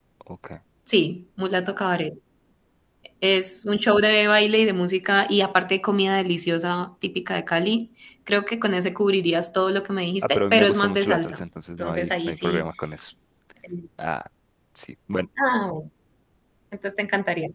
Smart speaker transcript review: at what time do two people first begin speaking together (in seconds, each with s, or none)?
10.2 s